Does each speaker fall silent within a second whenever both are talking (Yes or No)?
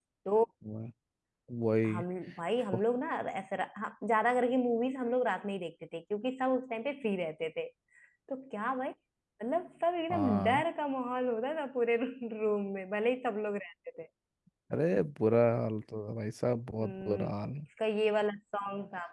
Yes